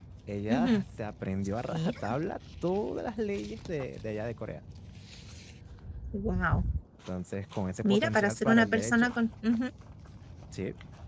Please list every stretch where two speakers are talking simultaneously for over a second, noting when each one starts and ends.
7.8-9.1

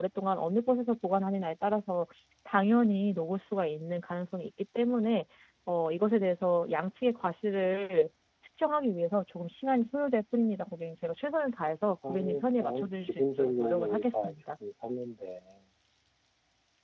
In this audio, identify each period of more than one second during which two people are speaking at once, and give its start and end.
12.1-14.3

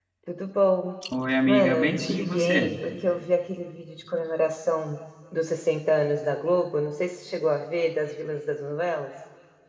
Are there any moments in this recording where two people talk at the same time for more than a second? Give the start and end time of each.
1.4-2.7

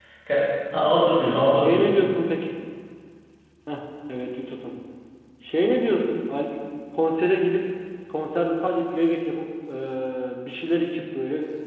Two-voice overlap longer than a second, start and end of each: none

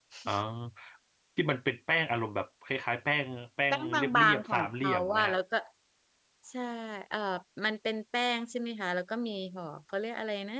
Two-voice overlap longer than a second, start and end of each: 3.7-5.3

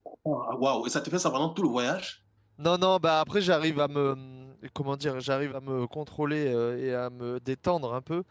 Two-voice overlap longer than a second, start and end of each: none

